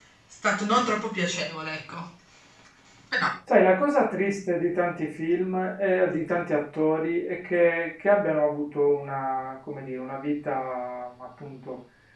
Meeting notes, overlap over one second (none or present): none